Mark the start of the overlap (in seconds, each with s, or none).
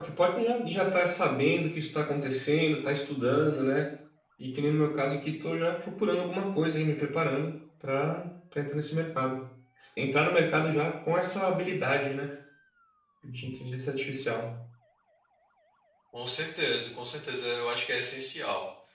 none